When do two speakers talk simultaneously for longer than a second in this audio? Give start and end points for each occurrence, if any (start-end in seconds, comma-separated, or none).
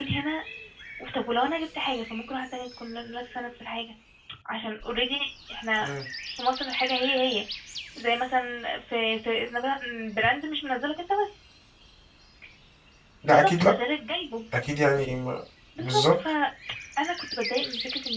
none